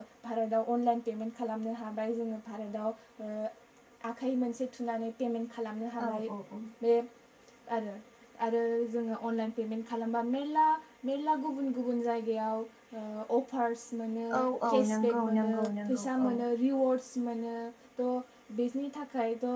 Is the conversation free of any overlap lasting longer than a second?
No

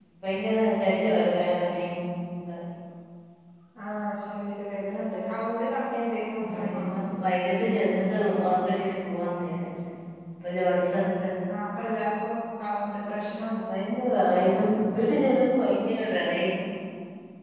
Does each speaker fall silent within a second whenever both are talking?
Yes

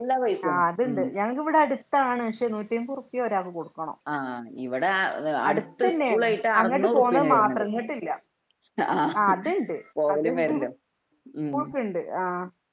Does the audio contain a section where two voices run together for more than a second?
Yes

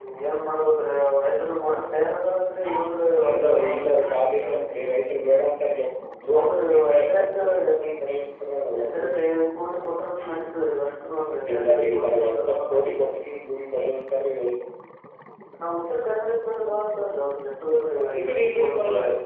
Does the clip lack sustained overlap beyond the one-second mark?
No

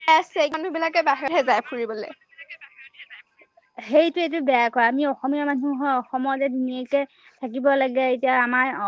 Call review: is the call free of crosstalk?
Yes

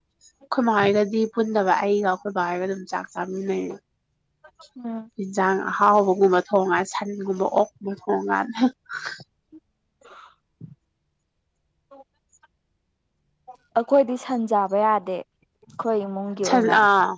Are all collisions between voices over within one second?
Yes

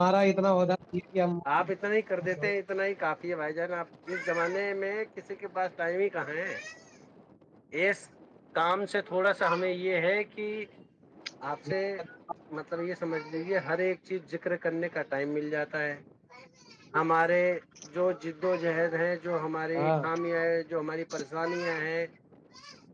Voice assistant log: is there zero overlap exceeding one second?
Yes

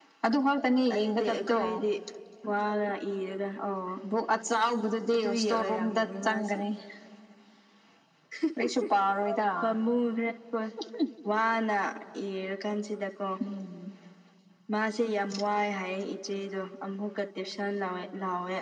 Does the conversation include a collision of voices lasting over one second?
Yes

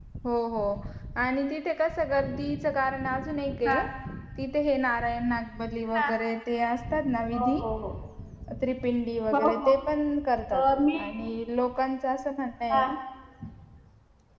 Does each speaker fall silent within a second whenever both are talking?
Yes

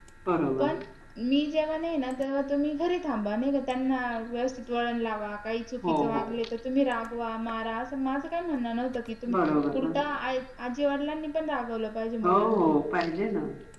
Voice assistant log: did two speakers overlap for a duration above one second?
No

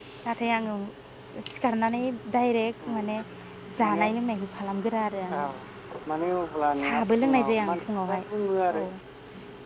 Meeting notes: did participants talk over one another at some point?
Yes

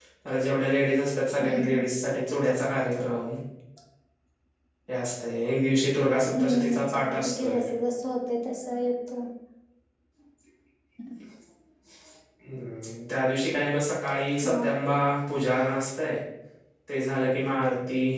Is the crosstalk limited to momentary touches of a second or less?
No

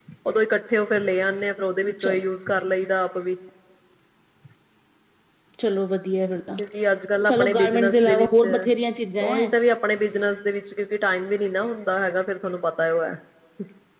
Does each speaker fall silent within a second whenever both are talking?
No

